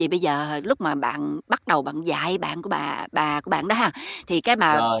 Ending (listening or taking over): listening